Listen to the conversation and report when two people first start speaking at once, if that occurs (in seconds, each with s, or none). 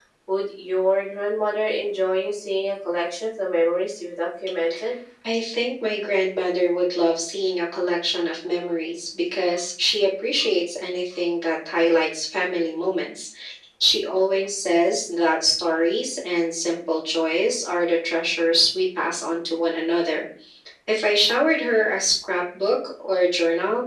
none